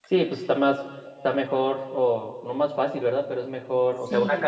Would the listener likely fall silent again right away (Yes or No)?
Yes